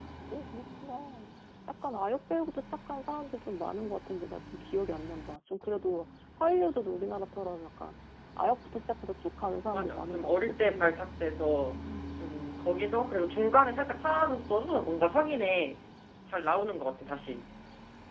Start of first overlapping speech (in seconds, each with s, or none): 9.7 s